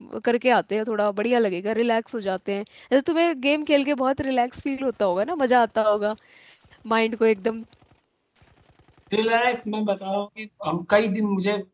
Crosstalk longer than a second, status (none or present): none